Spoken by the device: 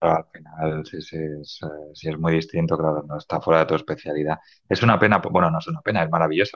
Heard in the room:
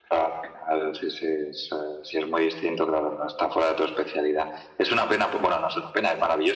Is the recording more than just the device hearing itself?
No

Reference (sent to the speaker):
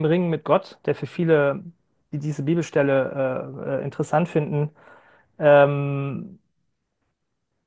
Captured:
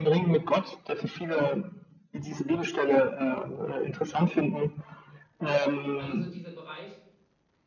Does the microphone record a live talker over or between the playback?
Yes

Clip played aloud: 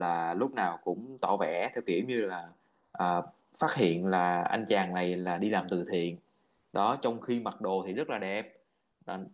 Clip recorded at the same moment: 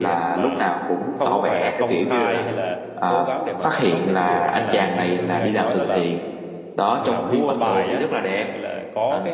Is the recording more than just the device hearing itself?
Yes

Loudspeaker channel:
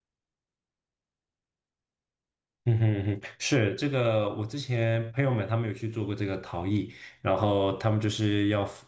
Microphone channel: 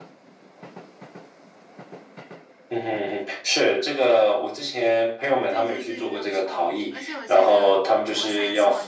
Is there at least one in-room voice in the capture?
Yes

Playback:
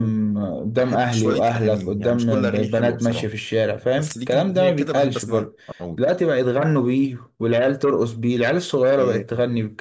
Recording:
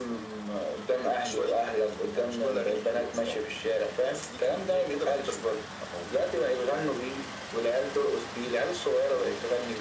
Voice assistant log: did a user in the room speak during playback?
No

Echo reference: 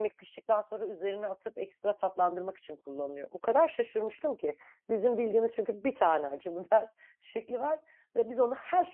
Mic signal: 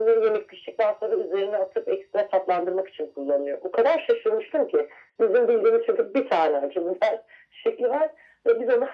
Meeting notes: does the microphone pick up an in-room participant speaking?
No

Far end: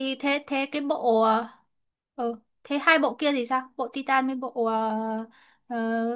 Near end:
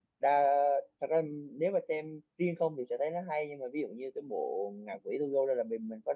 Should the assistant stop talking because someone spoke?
Yes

